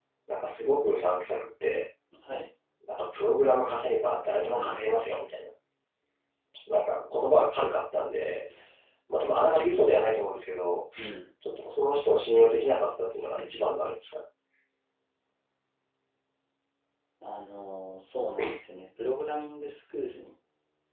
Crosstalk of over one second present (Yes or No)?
No